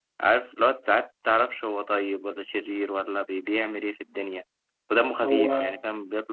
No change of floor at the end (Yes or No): Yes